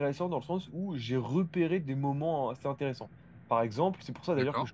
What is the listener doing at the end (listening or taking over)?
listening